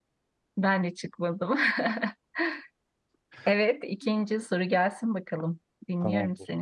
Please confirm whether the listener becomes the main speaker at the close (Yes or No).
Yes